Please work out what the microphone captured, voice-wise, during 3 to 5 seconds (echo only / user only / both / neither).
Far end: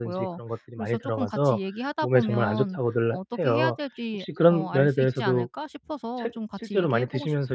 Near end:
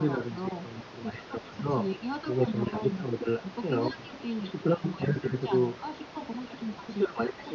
echo only